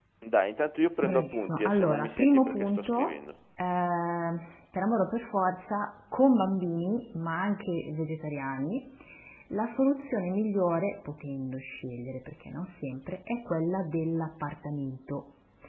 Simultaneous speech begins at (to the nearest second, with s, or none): 1 s